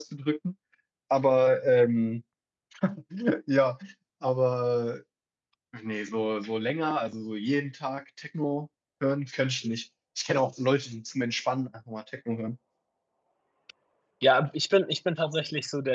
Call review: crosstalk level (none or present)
none